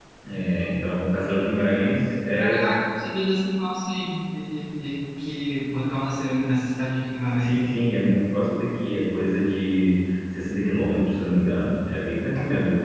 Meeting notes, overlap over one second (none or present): none